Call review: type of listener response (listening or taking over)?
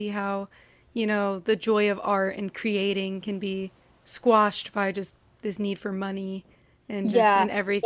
taking over